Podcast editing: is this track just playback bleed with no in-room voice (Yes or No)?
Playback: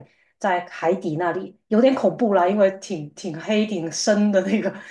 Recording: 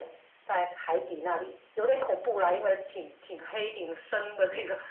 Yes